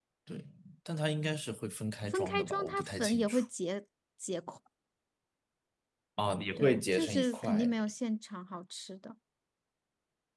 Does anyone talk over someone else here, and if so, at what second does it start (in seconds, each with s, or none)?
2.1 s